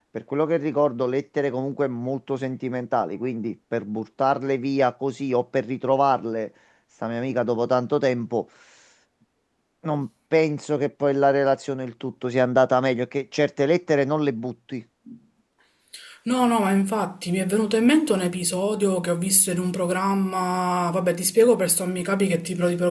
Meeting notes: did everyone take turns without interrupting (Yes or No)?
Yes